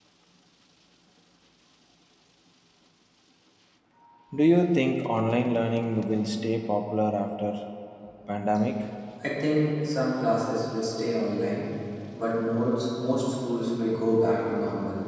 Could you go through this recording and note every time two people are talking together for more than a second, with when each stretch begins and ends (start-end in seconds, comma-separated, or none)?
none